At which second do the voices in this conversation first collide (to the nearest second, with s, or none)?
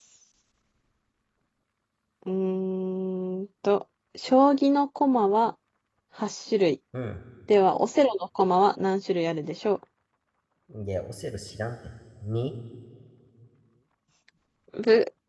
none